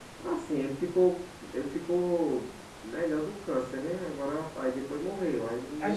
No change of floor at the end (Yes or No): No